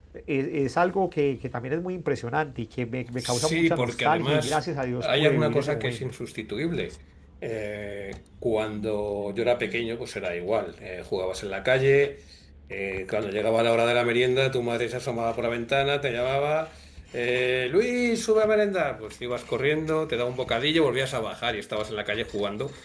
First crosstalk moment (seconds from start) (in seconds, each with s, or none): 3.2 s